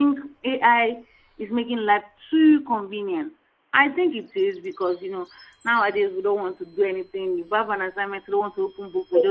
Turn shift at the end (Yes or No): Yes